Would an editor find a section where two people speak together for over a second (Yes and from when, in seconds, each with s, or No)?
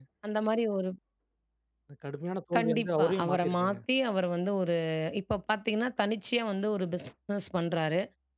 Yes, from 2.5 s